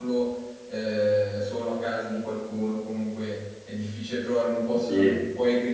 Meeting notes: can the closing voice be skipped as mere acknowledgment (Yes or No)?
Yes